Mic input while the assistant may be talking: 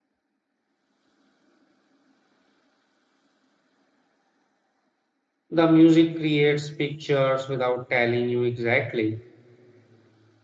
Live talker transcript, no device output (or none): The music creates pictures without telling you exactly